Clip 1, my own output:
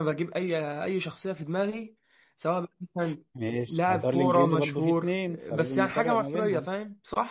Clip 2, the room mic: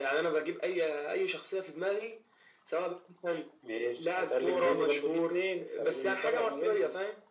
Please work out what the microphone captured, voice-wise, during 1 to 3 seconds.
echo only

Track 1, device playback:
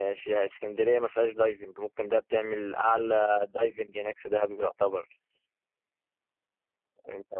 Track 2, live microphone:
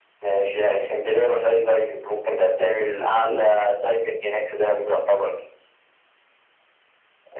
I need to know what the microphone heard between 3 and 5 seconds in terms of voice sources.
both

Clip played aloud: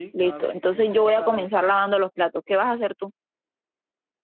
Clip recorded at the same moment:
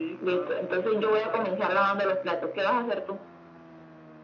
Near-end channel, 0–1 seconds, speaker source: echo only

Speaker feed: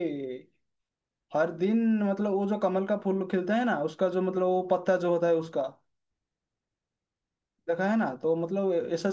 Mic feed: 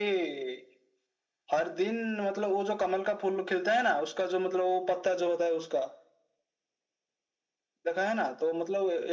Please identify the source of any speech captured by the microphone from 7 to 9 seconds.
echo only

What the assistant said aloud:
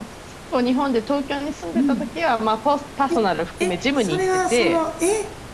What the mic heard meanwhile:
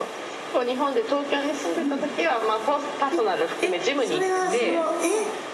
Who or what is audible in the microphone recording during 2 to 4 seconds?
echo only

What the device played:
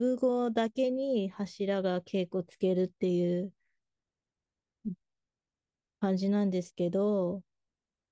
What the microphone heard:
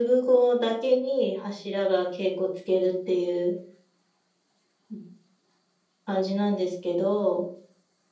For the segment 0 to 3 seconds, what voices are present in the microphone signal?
echo only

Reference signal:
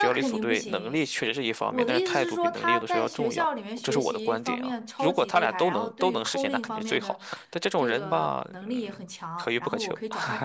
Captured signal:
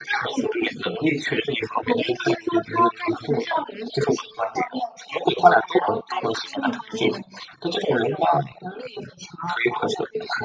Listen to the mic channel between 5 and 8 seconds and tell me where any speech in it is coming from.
echo only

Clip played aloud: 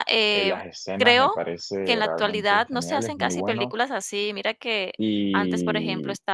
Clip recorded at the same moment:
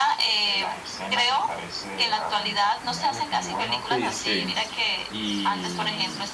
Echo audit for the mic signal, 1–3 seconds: echo only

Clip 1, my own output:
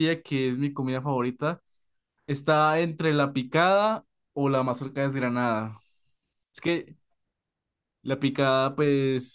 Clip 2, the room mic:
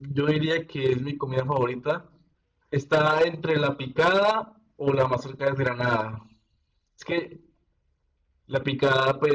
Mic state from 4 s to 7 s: echo only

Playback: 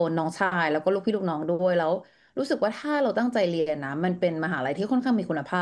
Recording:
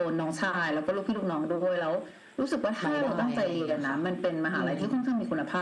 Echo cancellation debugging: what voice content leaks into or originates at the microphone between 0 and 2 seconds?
echo only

